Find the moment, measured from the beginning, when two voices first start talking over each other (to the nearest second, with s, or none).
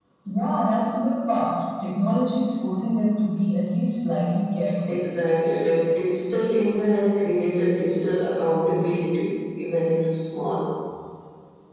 none